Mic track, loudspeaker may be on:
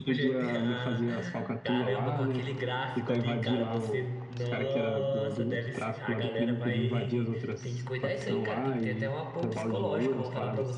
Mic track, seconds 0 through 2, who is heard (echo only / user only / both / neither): both